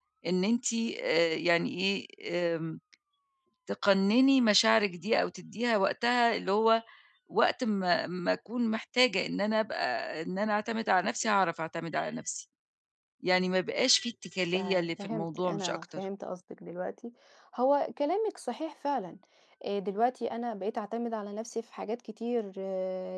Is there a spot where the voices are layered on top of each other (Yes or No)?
Yes